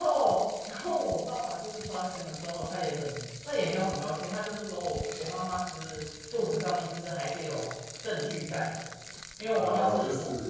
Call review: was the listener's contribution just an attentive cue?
No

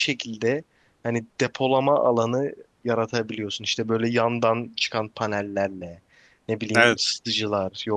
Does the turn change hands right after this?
No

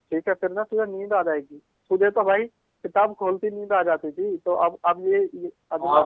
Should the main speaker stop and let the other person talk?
Yes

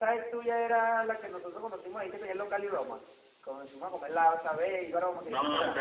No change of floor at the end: No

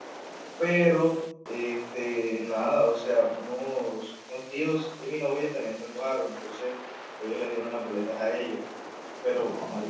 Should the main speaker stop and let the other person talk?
No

